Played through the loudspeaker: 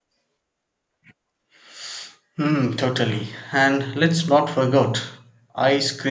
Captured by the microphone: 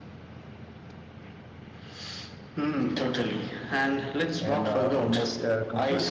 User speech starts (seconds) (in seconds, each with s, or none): 4.4 s